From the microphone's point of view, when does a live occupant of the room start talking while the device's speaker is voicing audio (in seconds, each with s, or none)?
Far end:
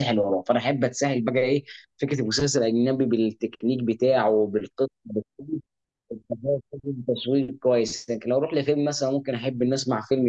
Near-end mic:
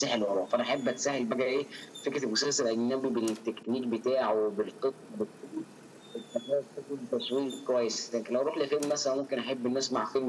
none